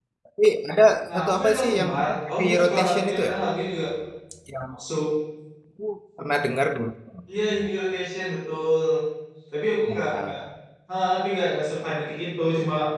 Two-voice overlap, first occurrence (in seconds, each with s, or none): 1.1 s